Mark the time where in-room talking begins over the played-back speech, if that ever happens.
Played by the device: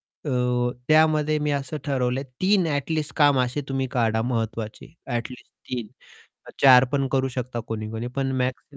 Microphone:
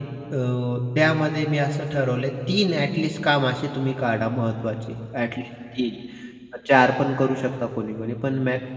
none

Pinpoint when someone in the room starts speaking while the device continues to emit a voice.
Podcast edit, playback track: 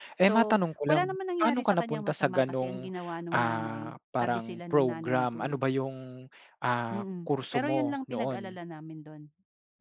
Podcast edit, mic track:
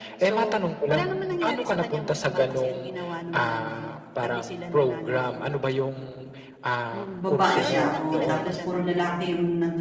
7 s

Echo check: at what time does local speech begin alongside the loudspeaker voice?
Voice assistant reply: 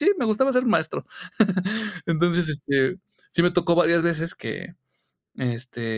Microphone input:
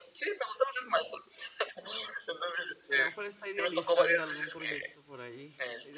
3 s

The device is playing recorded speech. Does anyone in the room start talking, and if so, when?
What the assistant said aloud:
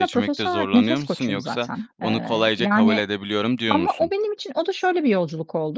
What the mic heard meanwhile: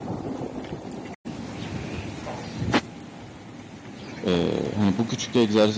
4 s

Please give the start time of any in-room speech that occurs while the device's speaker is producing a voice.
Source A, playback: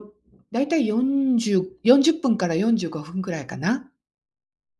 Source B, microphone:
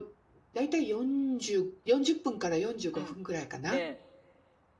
3 s

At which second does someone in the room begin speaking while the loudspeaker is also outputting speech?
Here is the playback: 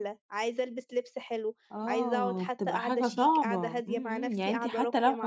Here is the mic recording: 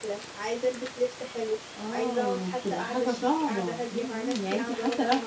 none

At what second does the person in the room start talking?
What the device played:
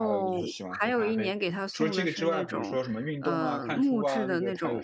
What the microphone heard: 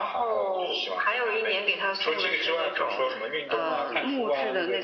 none

